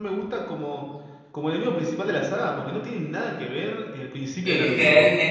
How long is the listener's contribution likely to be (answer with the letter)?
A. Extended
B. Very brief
A